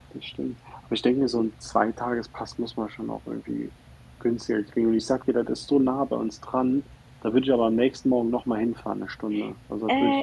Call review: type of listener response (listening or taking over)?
taking over